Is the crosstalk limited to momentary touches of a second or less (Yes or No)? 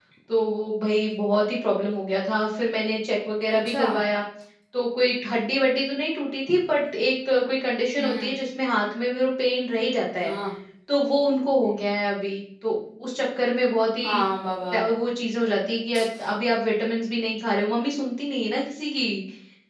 Yes